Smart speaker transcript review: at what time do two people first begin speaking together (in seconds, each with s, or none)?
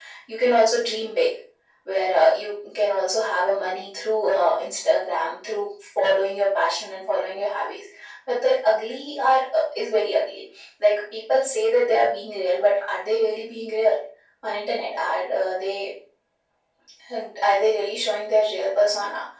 none